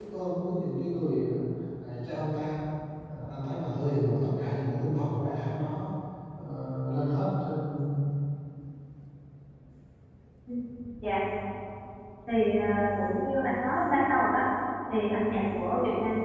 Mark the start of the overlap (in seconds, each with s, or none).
none